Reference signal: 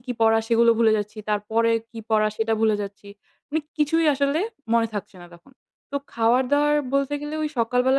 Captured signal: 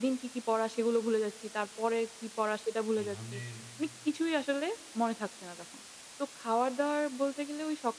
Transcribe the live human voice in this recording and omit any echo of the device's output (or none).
এ ধরনের